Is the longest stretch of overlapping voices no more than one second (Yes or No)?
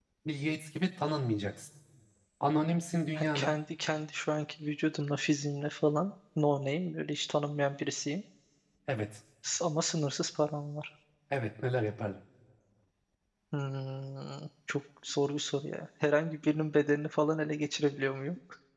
Yes